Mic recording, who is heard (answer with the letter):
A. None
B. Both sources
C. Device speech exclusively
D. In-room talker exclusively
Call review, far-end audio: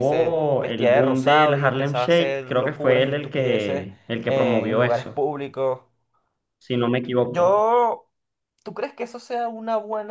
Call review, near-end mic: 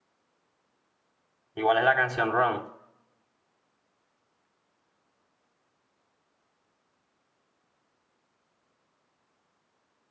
D